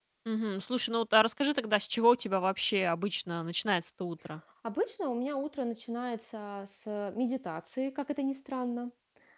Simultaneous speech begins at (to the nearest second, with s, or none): none